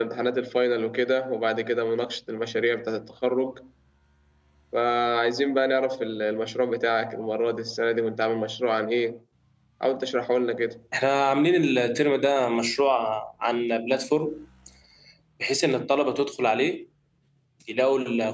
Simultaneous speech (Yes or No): No